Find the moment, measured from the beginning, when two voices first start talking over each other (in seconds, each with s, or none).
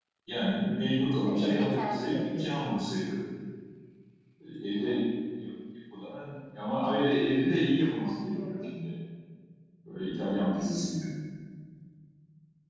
1.2 s